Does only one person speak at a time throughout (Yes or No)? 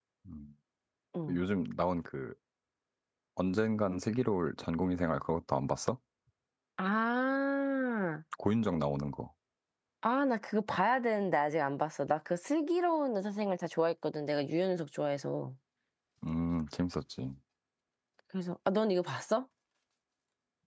Yes